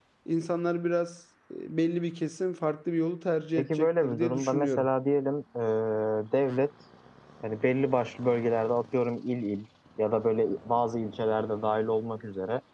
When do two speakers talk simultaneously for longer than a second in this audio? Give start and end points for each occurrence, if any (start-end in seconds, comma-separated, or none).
3.6-4.9